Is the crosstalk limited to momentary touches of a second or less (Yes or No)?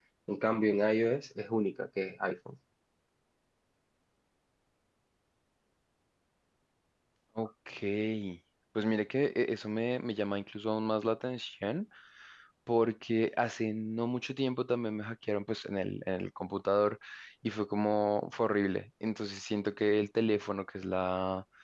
Yes